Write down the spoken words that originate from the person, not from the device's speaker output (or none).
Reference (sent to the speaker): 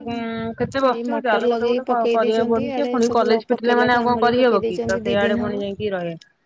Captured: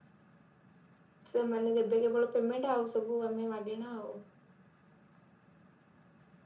ସେମାନେ ଦେବେ କେବଳ ପେମେଣ୍ଟ ଆଉ ସବୁ ଆମେ ମାଗେଣା ଆଉ